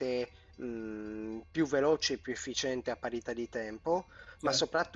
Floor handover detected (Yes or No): No